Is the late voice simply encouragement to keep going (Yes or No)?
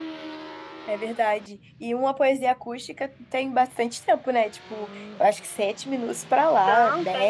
No